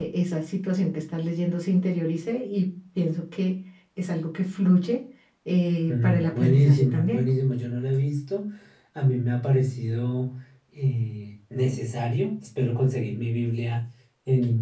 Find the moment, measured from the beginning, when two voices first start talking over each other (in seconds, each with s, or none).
5.9 s